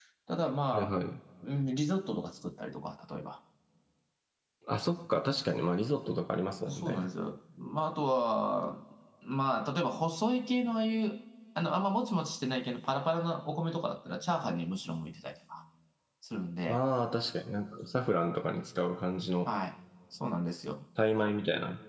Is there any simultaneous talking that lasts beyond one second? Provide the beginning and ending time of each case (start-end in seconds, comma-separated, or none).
none